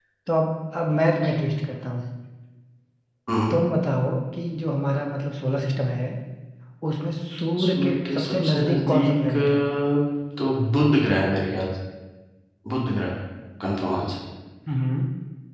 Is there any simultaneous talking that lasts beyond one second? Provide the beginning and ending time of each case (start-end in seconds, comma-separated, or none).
7.6-9.6